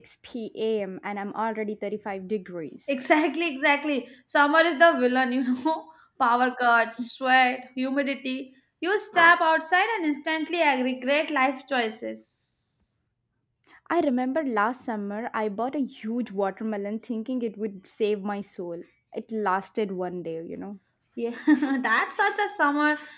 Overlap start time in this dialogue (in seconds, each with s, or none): none